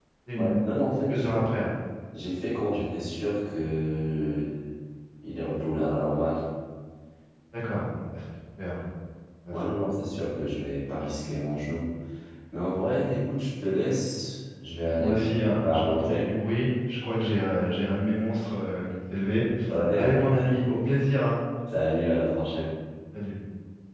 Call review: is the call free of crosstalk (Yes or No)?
No